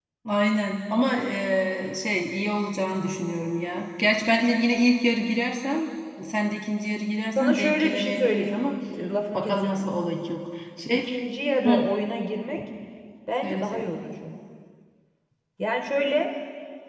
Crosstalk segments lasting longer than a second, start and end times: 7.4-8.6

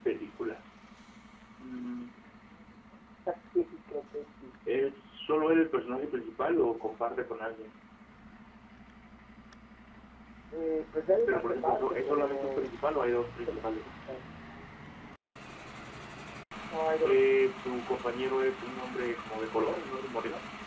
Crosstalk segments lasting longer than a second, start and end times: 11.3-12.7

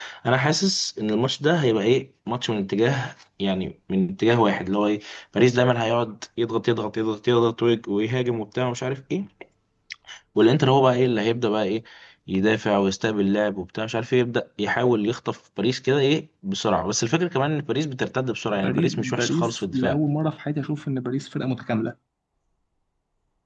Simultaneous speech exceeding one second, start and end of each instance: 18.5-20.0

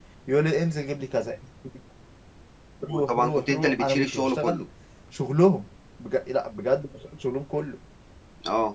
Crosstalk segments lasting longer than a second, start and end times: 2.9-4.6

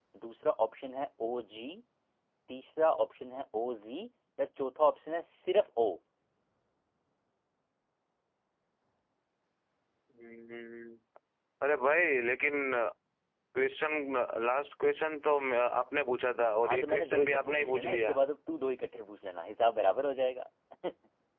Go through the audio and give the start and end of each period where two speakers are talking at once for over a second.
16.6-18.2

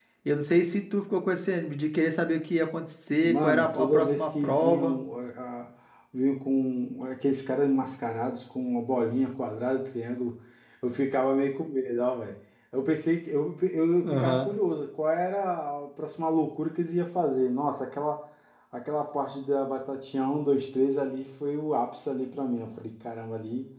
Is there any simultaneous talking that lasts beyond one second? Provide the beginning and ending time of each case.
3.2-5.0

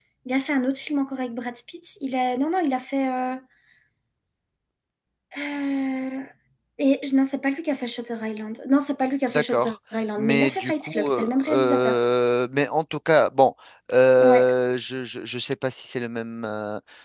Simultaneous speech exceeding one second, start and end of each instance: 10.2-12.0

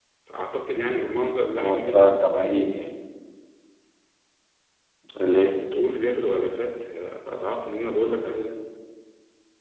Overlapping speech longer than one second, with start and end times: 1.6-2.8

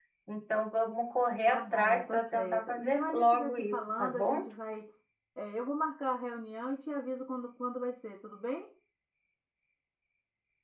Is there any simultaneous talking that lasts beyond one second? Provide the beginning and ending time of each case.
1.5-4.5

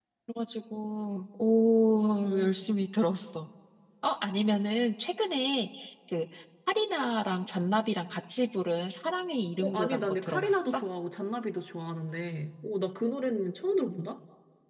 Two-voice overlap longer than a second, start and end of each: 9.6-10.8

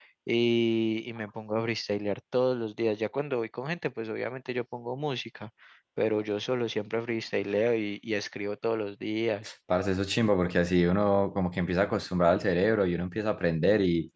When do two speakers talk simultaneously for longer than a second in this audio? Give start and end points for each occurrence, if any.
none

